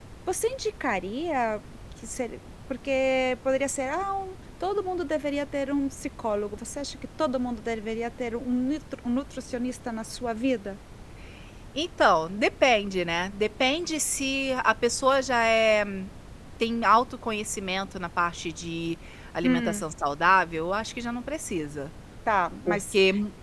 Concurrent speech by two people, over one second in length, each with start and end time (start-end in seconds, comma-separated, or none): none